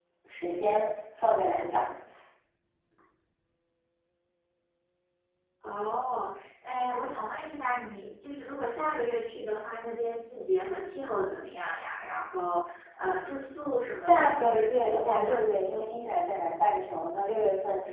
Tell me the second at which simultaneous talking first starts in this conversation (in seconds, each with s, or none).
14.1 s